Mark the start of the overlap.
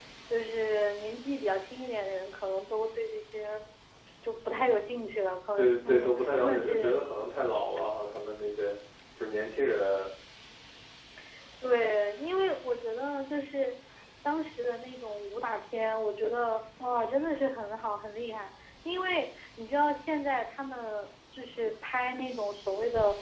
5.5 s

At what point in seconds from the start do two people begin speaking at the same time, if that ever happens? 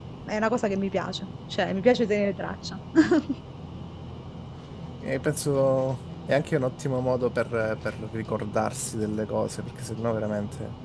none

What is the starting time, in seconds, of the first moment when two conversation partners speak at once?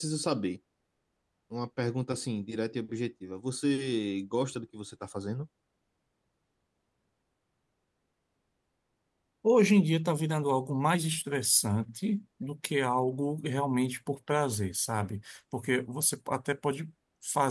none

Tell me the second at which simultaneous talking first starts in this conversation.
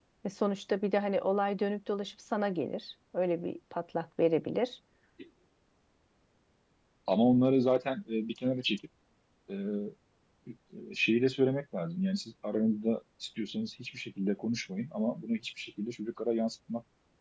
none

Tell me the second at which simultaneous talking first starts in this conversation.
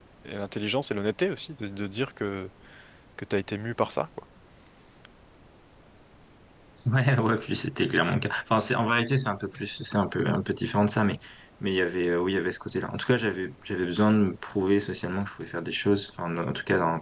none

